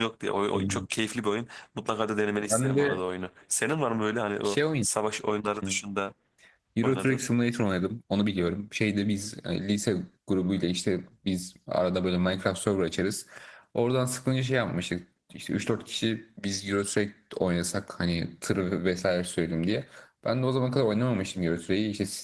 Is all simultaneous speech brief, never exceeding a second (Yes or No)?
Yes